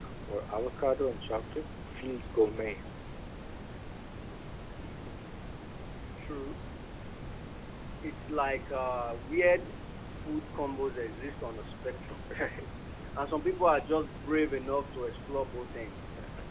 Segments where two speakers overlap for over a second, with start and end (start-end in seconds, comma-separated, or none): none